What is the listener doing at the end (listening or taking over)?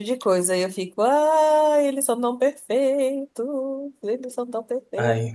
taking over